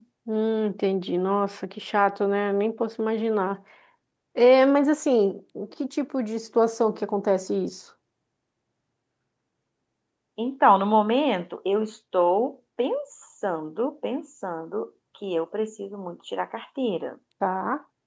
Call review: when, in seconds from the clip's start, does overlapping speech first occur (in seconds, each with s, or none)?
none